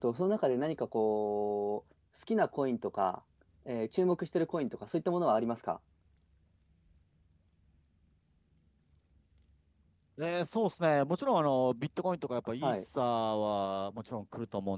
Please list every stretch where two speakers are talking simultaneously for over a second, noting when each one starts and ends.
none

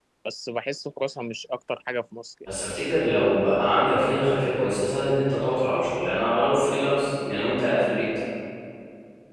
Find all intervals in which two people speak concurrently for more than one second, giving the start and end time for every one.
none

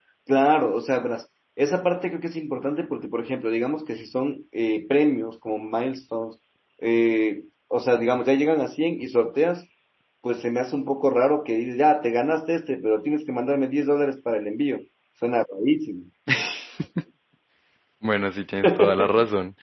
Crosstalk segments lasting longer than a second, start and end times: none

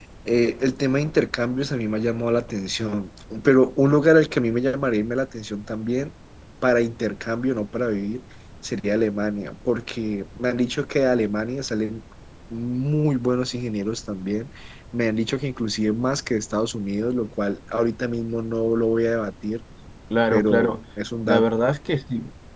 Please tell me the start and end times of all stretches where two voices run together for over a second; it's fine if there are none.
none

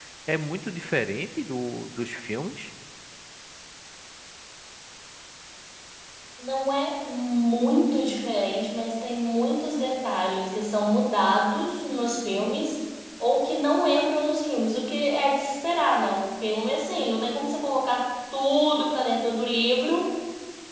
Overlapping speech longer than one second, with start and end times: none

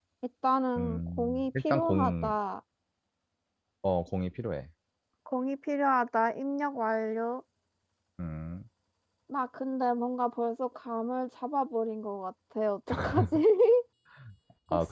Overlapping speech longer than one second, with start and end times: 0.8-2.3

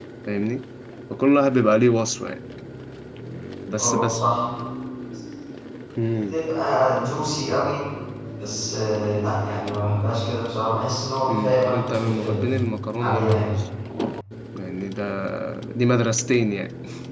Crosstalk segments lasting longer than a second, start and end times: 11.3-12.5

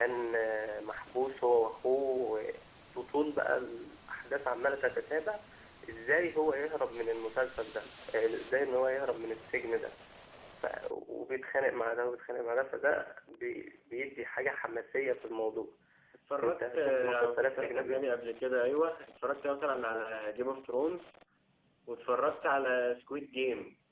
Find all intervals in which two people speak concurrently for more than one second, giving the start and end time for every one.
16.4-18.0

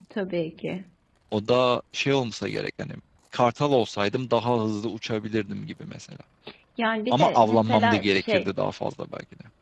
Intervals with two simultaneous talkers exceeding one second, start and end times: 7.1-8.4

